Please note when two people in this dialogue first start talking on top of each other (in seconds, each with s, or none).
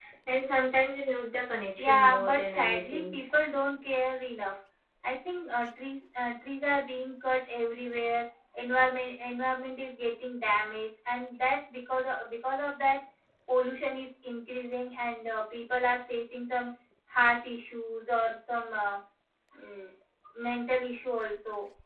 1.8 s